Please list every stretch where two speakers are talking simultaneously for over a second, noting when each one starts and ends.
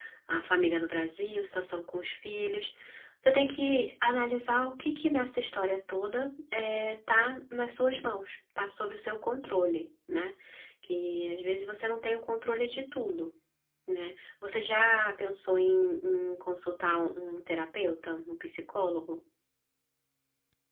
none

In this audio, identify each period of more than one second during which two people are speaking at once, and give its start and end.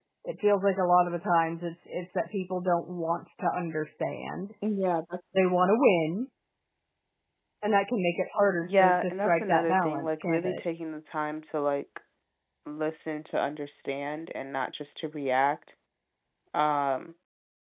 8.6-10.6

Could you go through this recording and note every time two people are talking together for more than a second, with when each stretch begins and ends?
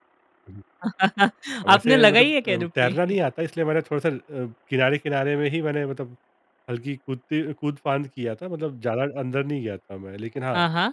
1.7-3.2

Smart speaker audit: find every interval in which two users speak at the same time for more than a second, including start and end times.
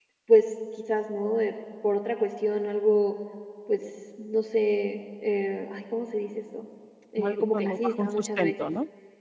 7.2-8.6

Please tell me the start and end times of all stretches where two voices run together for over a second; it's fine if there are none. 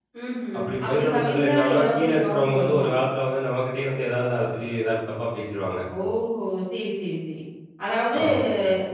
0.6-2.9

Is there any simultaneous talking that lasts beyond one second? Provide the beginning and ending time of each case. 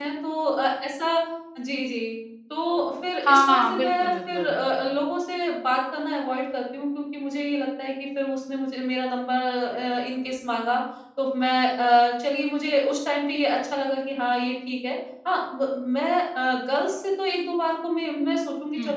3.2-4.6

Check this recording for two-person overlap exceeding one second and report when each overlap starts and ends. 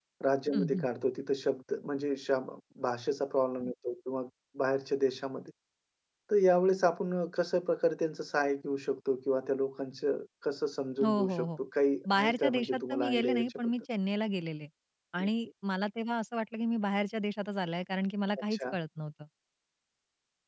12.1-13.7

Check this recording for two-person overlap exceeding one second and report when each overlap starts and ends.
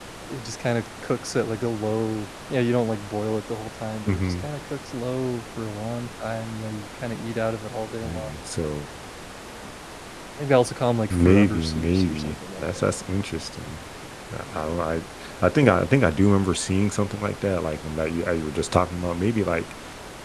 11.1-12.6

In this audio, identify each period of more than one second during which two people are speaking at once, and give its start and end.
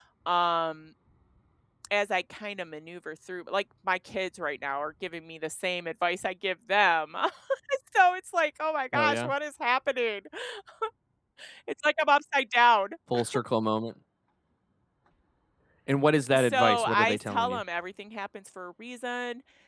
16.4-17.6

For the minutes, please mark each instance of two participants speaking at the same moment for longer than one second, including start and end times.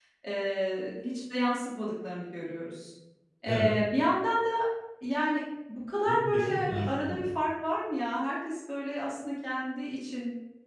6.0-7.3

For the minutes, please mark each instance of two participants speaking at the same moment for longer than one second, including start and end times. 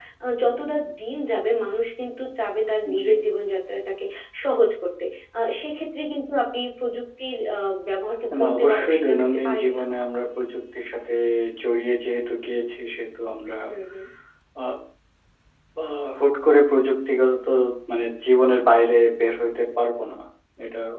8.4-9.8

